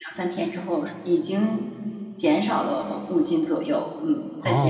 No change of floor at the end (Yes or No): No